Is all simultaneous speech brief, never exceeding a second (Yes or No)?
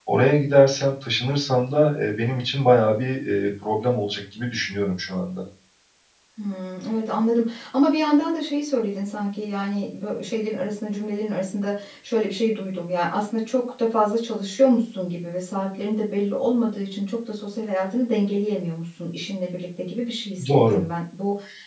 Yes